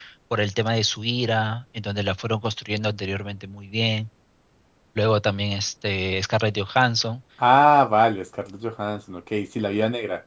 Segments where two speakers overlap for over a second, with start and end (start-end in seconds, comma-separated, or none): none